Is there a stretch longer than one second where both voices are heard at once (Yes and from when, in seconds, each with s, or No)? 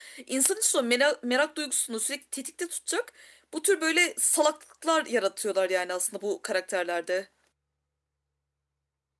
No